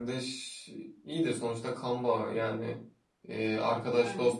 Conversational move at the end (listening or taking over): listening